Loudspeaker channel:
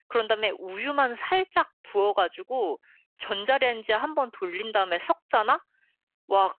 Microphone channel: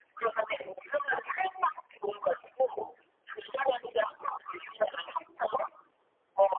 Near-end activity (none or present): none